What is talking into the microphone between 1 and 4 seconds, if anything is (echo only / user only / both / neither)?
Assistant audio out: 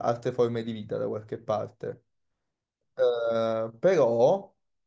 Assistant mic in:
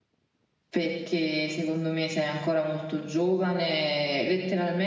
user only